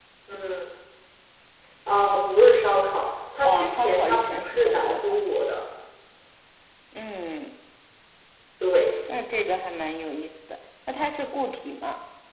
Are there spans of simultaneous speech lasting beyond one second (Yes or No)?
Yes